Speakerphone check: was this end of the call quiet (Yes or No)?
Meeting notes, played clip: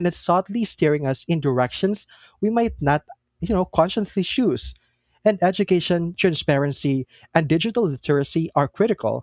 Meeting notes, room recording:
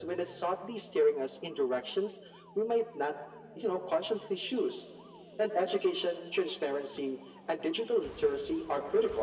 Yes